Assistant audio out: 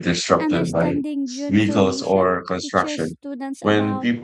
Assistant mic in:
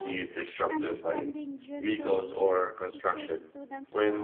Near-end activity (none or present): none